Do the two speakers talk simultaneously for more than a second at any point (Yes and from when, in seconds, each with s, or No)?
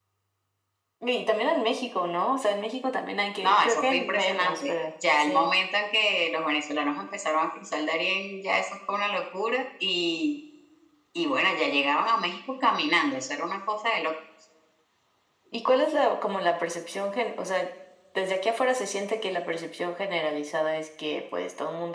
Yes, from 3.4 s